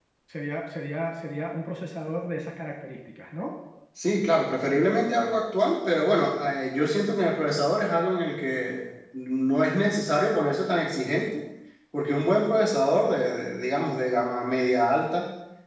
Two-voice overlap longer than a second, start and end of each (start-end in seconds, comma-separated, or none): none